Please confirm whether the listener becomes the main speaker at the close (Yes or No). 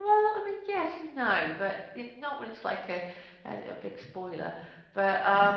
Yes